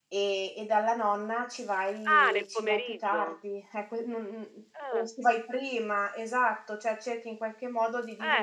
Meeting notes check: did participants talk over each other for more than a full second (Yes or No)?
Yes